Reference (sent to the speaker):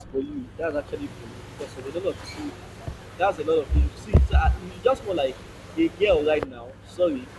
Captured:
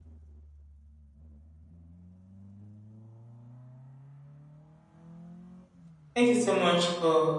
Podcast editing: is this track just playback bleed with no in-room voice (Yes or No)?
No